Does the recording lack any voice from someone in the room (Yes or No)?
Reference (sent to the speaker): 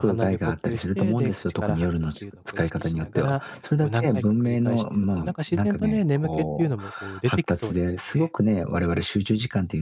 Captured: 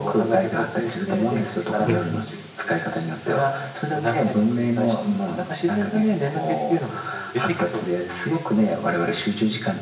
No